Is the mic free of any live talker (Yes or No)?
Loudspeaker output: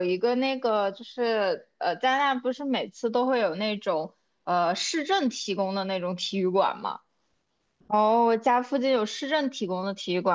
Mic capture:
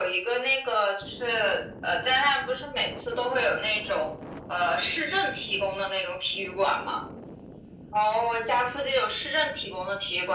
Yes